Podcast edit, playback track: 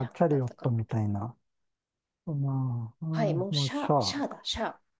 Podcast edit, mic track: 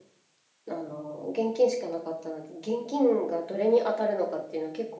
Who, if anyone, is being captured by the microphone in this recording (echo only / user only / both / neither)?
user only